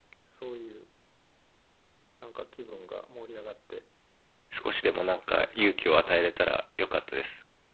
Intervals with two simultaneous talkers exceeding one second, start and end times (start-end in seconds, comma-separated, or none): 4.9-6.2